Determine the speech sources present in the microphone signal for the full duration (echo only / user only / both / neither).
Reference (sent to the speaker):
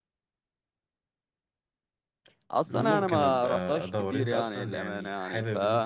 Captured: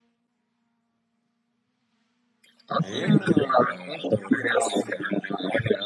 both